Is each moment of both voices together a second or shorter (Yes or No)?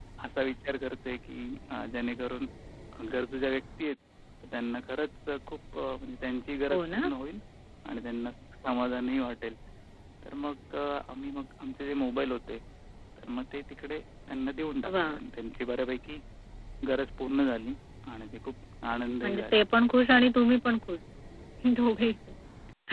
Yes